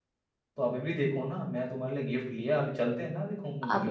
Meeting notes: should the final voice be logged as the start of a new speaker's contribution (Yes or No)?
Yes